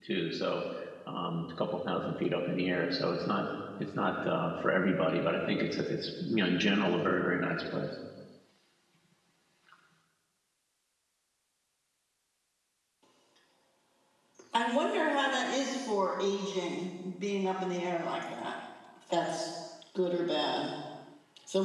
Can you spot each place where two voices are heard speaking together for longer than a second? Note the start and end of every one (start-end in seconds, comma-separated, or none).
none